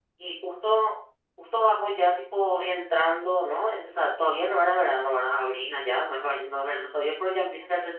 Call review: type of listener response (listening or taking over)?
listening